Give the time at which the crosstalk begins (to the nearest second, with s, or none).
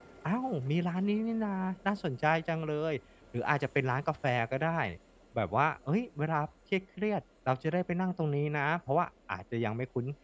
none